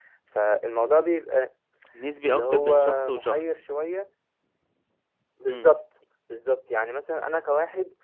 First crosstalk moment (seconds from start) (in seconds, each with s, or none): 2.2 s